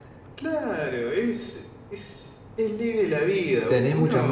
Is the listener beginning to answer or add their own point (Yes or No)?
Yes